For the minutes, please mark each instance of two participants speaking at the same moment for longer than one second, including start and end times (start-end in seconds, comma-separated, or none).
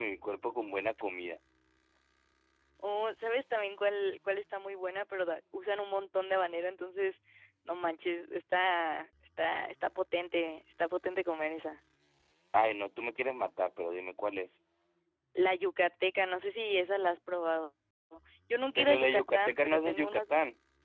18.8-20.3